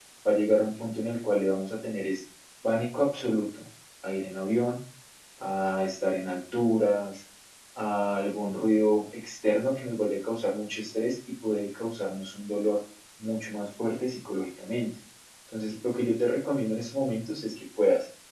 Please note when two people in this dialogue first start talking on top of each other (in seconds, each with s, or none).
none